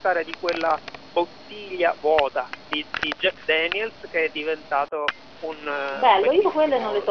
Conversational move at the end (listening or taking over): taking over